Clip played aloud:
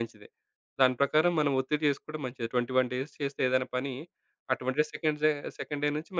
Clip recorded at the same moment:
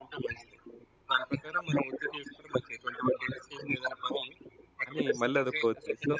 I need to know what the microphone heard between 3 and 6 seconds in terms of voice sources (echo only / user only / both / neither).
both